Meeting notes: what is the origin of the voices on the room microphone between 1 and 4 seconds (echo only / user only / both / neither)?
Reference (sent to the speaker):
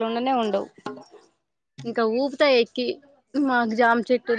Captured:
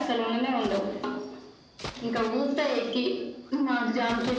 echo only